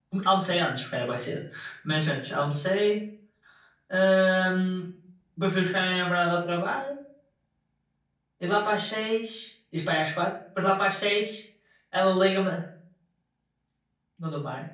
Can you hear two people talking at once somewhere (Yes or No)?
No